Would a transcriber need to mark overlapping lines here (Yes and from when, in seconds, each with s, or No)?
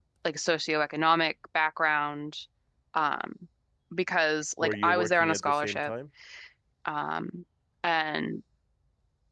Yes, from 4.6 s